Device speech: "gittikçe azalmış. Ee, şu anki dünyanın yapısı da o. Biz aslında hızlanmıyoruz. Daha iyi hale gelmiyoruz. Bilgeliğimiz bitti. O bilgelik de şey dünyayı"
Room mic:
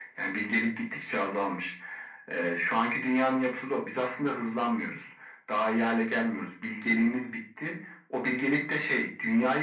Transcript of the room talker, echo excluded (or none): none